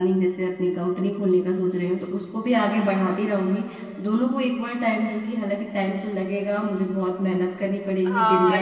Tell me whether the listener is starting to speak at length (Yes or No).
Yes